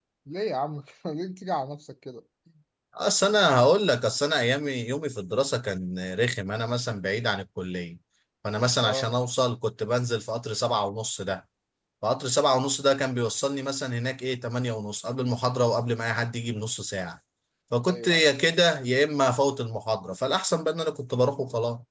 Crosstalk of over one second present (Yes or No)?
No